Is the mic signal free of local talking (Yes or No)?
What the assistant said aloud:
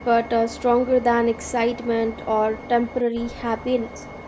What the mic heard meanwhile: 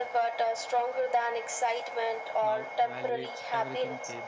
No